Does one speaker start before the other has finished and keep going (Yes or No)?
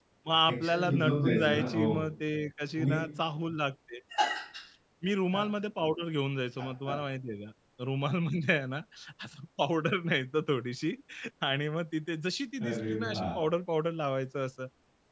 Yes